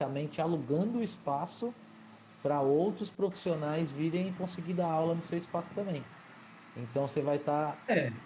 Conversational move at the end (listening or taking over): listening